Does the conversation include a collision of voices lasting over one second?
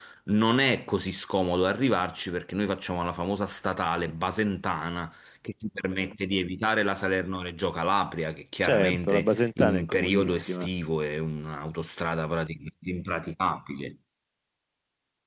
Yes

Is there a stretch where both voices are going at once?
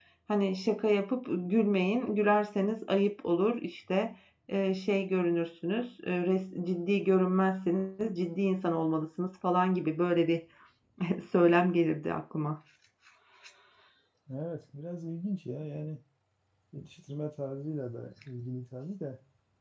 No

